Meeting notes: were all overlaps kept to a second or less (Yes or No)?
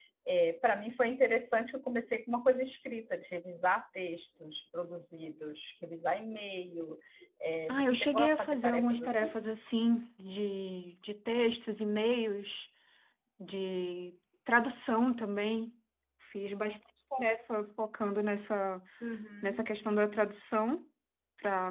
No